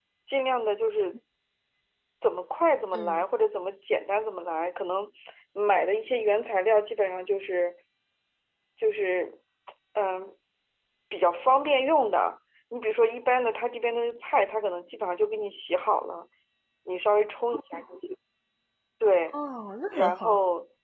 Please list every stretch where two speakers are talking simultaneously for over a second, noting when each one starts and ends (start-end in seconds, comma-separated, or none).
none